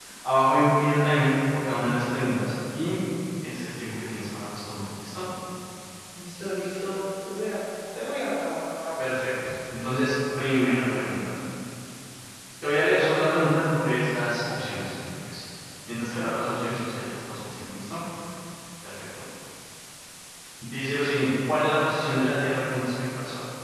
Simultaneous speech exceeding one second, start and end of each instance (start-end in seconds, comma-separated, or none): none